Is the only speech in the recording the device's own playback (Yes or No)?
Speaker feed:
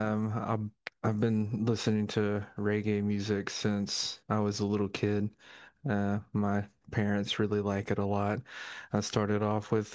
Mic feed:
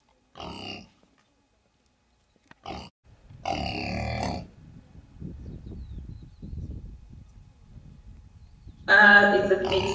No